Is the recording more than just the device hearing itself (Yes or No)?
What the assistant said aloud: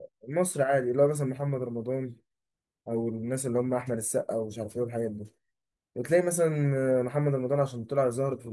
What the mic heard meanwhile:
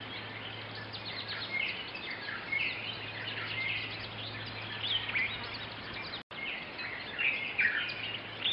No